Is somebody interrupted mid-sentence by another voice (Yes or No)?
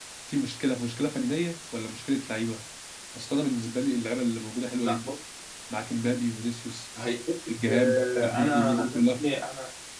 Yes